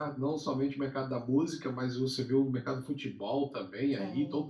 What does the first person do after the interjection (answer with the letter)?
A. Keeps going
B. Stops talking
A